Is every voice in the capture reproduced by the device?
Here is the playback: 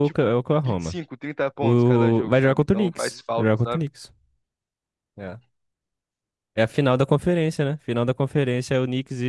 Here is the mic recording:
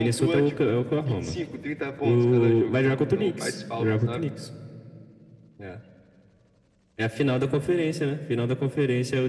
Yes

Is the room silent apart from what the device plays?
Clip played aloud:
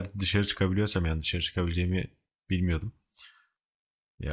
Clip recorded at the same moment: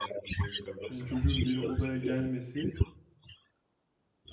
No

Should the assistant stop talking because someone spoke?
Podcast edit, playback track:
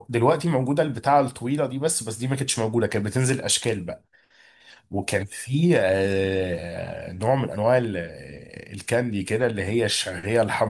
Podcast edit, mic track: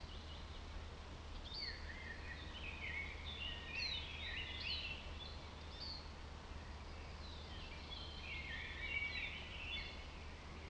No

